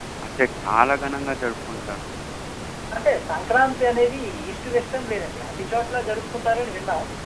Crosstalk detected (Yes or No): No